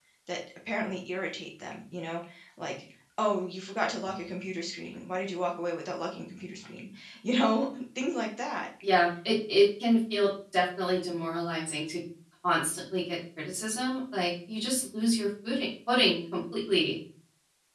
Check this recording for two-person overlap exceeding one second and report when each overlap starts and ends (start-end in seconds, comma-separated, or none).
none